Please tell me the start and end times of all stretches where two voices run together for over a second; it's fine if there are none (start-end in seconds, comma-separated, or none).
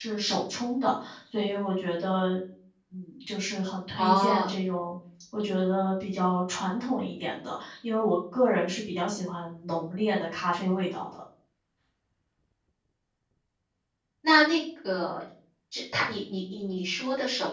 none